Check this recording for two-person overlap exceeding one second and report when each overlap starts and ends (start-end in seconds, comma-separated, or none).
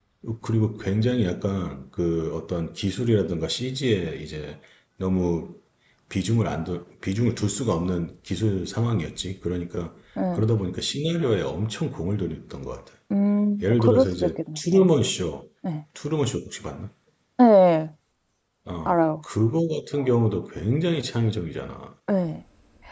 13.6-14.9